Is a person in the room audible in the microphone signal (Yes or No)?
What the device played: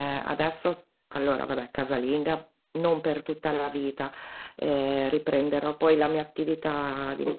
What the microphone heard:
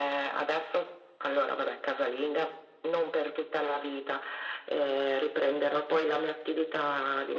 No